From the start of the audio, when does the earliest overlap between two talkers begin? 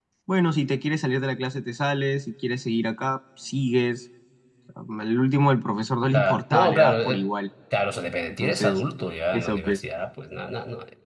6.0 s

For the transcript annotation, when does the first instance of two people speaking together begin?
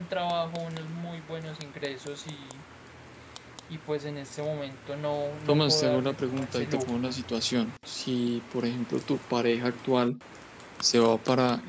5.5 s

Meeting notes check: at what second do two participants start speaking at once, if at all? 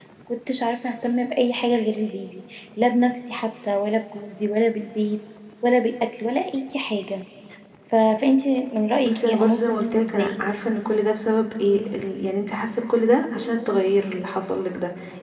9.0 s

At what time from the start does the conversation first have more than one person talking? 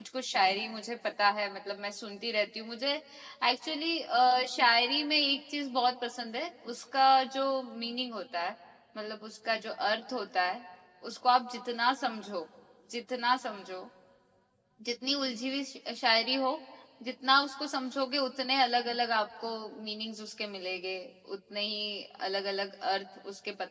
none

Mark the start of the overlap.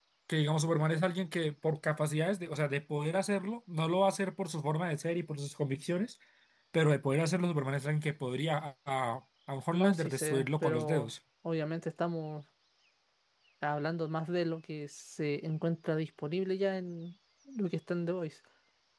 9.7 s

